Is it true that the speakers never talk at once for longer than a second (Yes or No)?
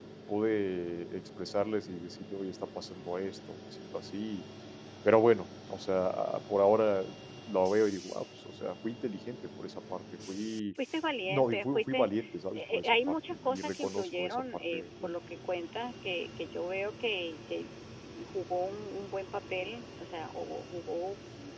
No